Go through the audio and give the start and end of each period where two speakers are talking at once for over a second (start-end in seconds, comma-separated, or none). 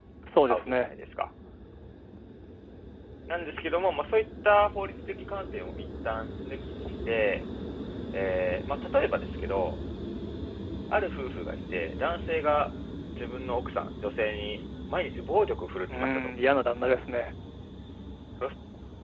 none